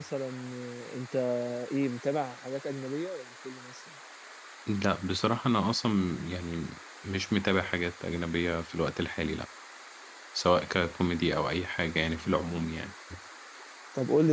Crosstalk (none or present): none